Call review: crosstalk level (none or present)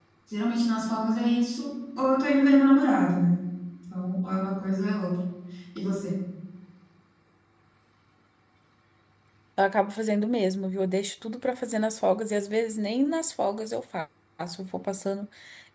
none